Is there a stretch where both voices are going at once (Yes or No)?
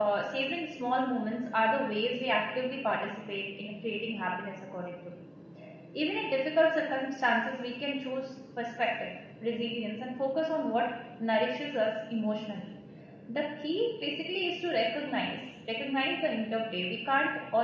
No